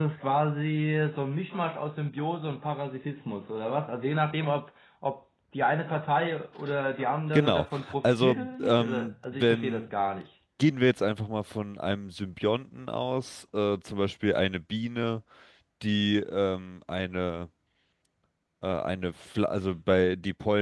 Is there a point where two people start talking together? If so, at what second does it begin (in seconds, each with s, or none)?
7.3 s